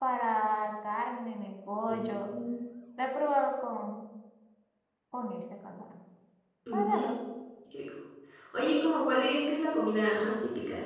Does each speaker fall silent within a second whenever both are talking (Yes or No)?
Yes